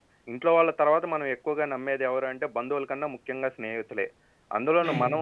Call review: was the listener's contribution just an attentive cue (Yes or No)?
Yes